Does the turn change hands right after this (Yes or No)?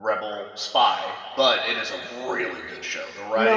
Yes